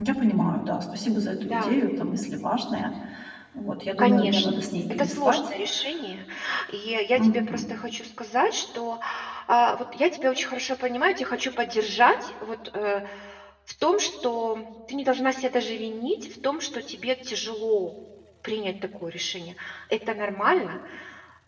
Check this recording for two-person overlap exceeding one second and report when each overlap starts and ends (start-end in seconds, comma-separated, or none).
4.0-5.4